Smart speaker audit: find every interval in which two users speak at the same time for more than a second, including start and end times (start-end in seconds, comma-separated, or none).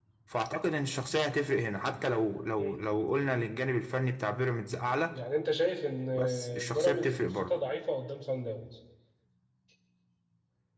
6.2-7.6